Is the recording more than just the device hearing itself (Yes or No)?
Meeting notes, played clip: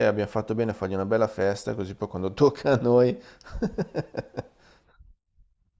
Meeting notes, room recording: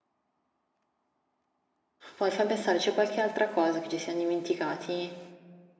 Yes